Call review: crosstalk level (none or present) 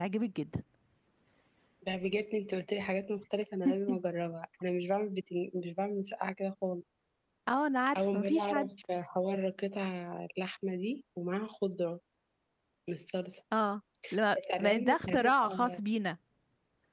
present